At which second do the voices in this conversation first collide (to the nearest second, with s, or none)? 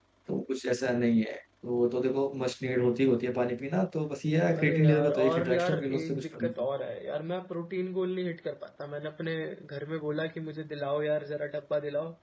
5 s